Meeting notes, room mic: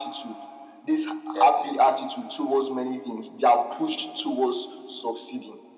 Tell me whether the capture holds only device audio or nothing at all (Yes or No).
No